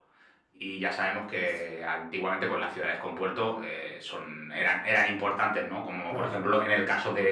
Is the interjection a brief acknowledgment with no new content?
Yes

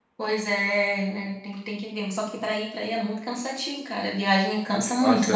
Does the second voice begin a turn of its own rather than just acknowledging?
Yes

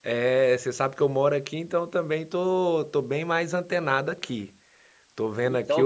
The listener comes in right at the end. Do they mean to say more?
Yes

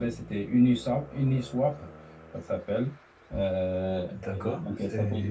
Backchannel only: No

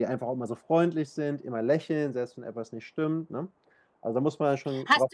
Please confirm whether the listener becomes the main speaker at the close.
Yes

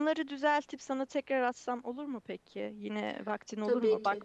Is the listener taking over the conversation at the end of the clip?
No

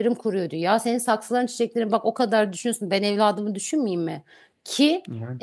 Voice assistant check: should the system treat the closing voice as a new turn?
No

